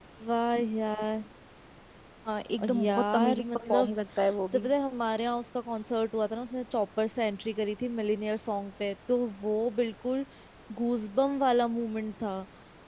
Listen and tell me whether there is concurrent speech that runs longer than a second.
Yes, from 2.7 s

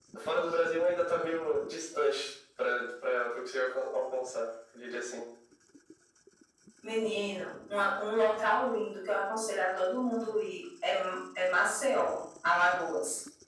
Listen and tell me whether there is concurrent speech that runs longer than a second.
No

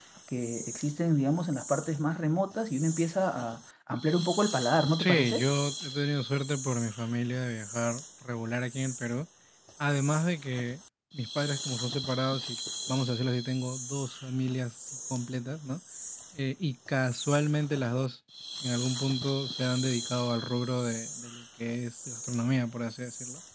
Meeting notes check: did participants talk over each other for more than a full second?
No

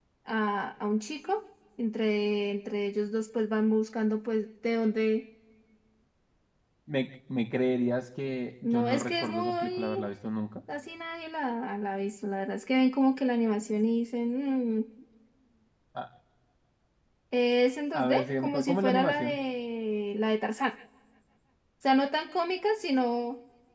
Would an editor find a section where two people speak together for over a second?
Yes, from 8.6 s

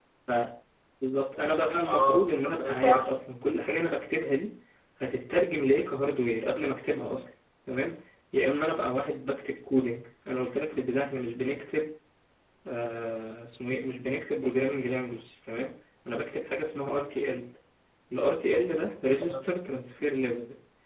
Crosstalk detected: Yes, from 1.9 s

